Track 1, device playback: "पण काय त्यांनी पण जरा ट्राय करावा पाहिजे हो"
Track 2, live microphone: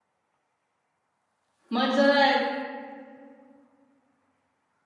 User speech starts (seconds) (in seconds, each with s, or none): 1.7 s